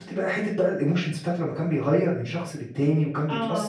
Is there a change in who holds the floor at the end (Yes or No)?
No